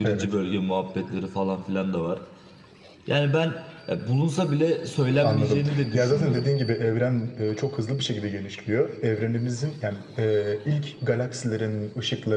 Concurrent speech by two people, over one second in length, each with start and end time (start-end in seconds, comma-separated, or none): 5.2-6.5